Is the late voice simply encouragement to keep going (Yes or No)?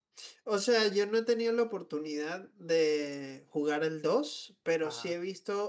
Yes